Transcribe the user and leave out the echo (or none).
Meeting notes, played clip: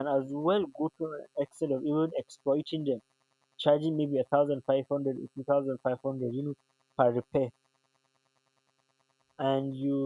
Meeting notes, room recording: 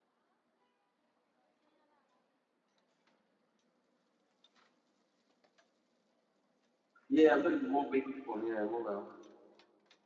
Yeah, I'm talking the mobile phone. Yeah, mobile.